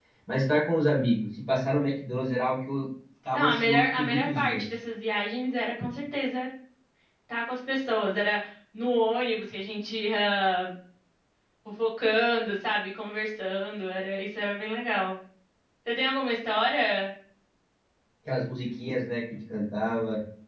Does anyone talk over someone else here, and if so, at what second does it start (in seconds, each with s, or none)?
3.3 s